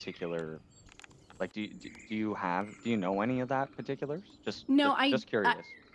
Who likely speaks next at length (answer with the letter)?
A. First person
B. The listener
B